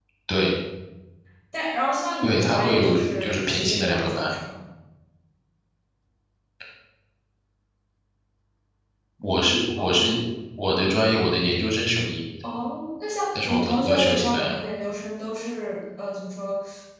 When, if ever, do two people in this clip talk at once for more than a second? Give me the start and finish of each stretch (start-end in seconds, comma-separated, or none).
2.2-4.3, 13.3-14.6